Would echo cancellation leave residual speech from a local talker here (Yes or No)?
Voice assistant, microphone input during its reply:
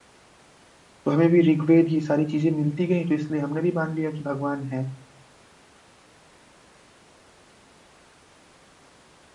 Yes